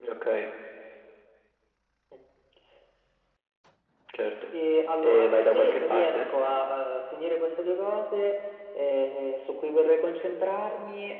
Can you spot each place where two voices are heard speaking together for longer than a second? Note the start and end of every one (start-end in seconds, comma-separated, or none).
5.0-6.2